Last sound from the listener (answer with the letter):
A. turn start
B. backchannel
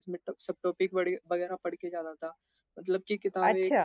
B